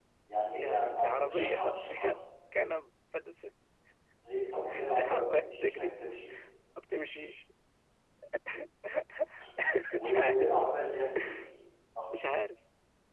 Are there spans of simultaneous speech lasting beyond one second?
Yes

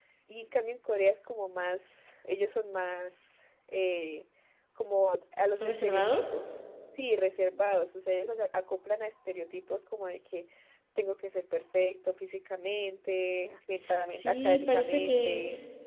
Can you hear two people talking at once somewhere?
Yes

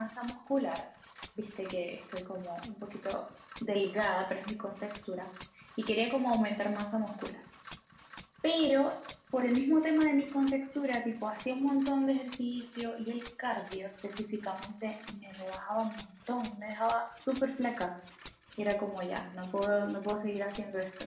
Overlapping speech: No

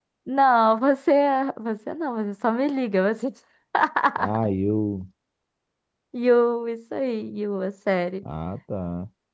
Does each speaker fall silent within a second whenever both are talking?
Yes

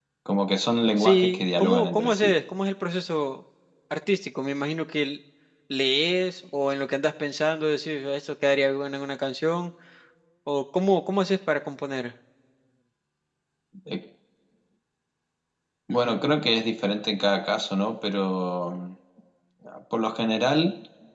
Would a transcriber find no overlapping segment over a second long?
No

